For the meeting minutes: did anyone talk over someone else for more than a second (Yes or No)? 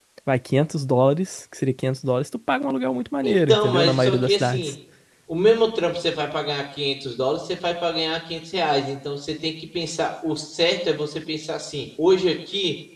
Yes